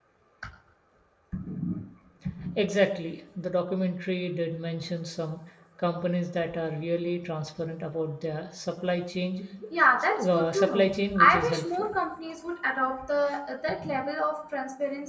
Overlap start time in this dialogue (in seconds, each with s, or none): 10.2 s